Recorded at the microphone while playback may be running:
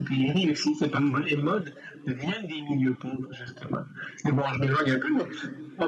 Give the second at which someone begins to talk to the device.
0.9 s

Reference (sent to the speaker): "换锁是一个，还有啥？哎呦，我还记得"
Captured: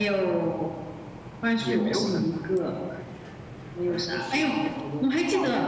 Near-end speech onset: 1.6 s

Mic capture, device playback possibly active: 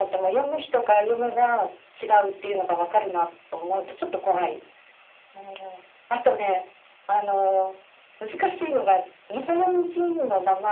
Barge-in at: none

